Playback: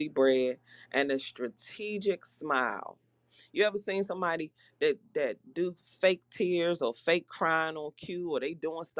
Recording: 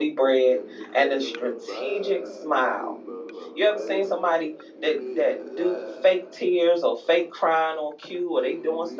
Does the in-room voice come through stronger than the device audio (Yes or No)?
No